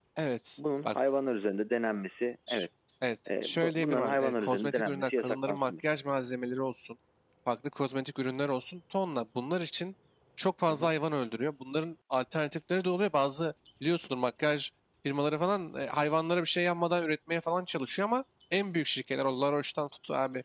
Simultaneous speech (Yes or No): Yes